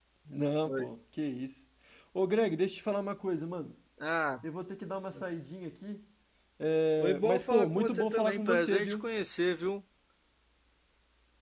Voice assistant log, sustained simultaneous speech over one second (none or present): present